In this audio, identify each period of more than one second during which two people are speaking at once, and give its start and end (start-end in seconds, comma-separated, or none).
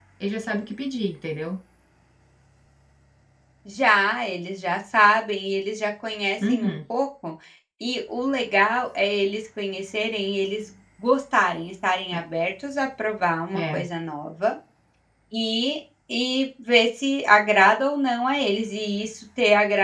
none